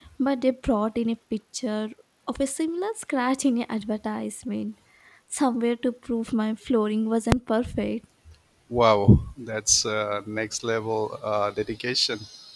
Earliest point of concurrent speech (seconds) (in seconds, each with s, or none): none